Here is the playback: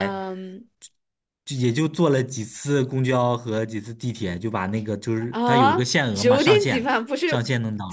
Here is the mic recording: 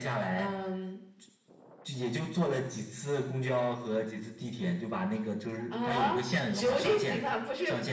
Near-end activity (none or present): none